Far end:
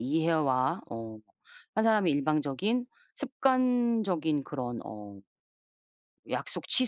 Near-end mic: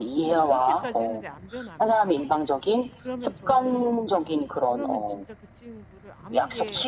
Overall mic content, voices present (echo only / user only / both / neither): both